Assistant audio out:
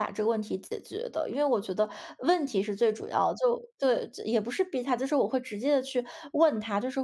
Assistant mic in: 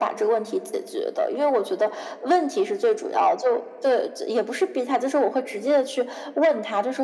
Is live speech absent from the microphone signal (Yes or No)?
Yes